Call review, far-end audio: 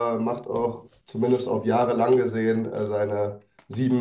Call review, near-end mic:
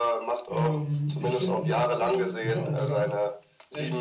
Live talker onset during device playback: 0.5 s

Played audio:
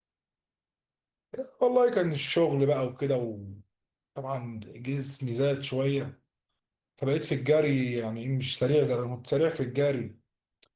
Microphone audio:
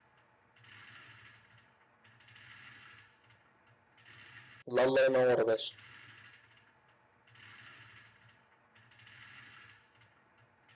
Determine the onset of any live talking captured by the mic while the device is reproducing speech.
4.7 s

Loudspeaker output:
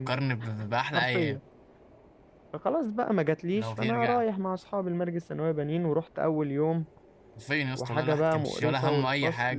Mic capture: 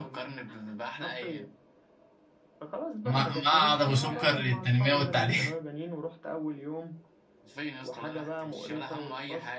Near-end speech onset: 3.1 s

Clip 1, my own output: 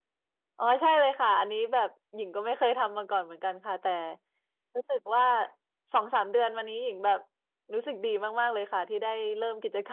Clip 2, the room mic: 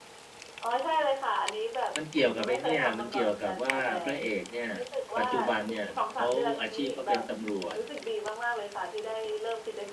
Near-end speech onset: 1.9 s

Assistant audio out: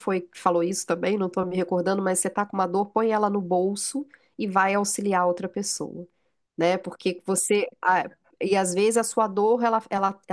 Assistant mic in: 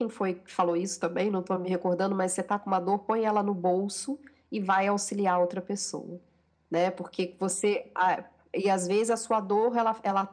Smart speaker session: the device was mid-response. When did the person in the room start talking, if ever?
none

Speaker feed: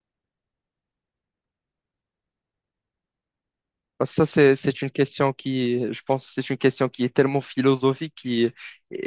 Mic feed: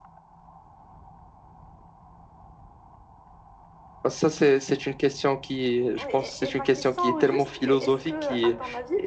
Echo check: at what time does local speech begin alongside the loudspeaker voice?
6.0 s

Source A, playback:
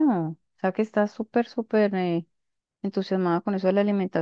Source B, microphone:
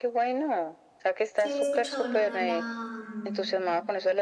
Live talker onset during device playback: 1.4 s

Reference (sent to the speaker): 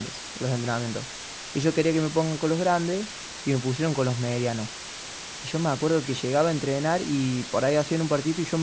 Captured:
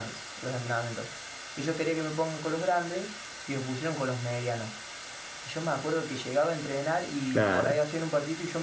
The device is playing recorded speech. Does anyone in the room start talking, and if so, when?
7.3 s

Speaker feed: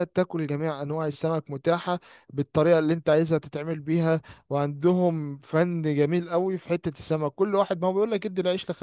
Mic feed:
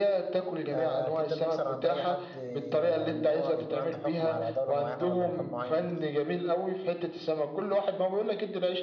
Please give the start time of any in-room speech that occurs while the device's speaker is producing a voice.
0.7 s

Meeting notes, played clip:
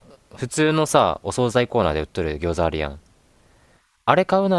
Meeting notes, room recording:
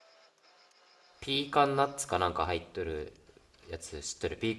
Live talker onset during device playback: 1.2 s

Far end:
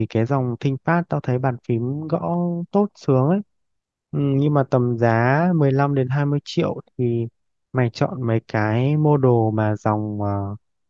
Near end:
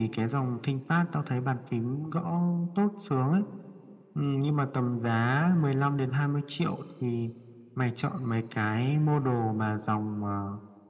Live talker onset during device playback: none

